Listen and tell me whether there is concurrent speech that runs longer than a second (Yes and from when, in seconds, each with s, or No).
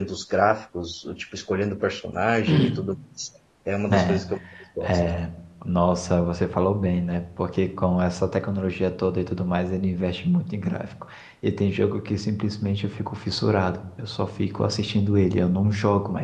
No